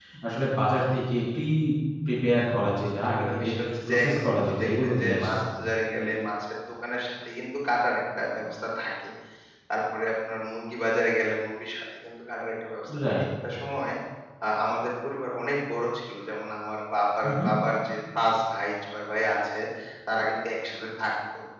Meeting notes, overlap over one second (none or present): present